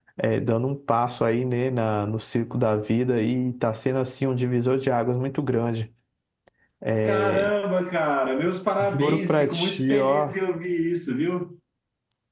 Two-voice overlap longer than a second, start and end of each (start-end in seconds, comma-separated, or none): 8.8-10.3